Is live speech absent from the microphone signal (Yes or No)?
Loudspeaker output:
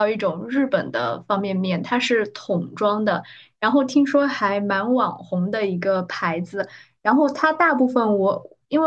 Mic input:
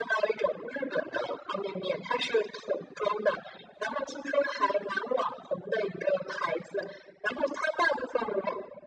Yes